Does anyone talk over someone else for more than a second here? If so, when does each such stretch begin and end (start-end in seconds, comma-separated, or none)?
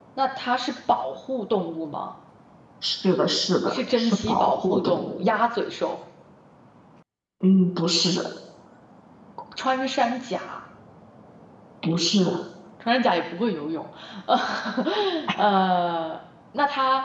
3.7-5.3